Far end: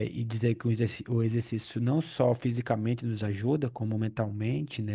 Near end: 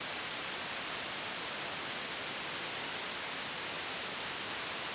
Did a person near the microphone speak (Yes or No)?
No